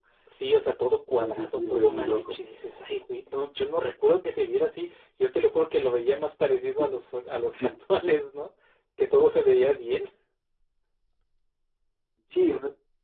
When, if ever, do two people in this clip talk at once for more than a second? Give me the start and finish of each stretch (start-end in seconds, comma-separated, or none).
1.2-2.4